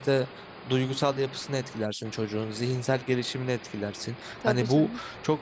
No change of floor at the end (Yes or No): Yes